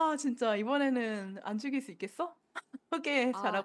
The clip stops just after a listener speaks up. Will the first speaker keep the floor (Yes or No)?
No